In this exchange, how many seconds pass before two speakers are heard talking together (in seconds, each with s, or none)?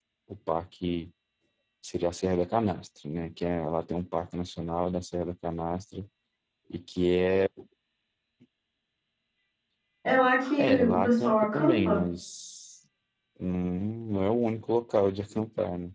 10.6 s